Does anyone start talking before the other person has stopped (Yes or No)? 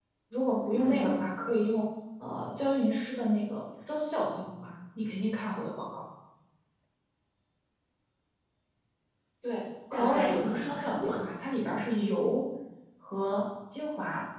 Yes